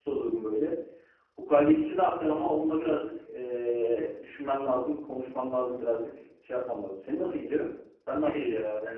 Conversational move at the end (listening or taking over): taking over